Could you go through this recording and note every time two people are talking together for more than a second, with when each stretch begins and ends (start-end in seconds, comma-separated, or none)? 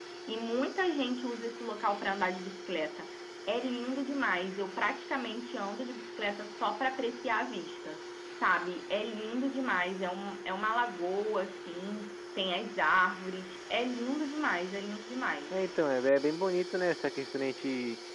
none